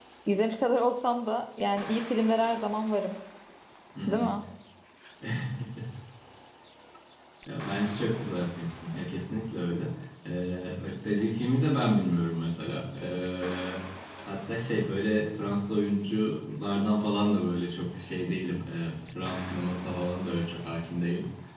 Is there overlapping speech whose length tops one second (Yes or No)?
No